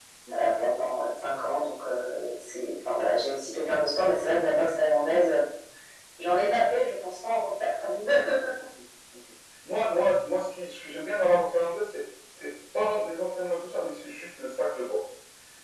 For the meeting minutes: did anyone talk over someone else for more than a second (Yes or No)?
No